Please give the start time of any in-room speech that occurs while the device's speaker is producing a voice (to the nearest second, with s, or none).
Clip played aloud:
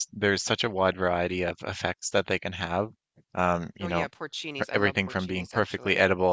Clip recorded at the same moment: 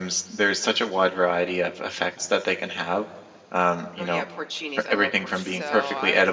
5 s